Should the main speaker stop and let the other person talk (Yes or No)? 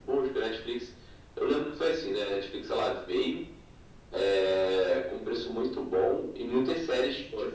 No